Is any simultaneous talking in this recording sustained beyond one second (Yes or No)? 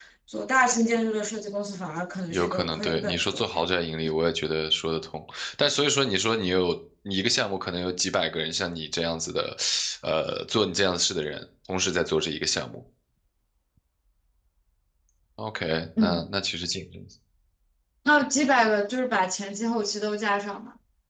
Yes